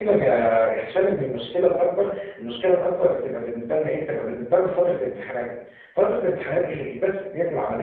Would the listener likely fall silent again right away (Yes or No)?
Yes